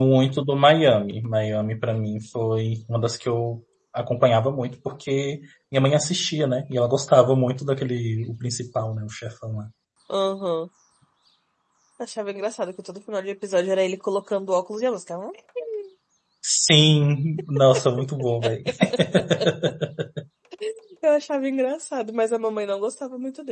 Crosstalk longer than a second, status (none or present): none